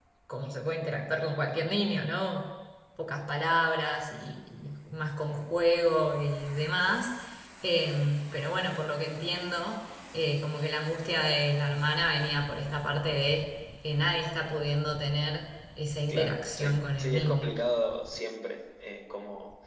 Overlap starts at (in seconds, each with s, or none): 16.1 s